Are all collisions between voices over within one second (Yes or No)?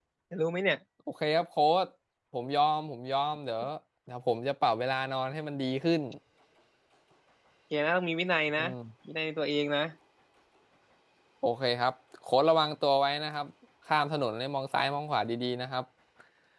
Yes